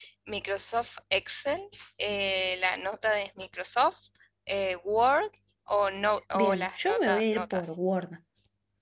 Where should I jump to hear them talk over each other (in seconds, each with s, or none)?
6.3 s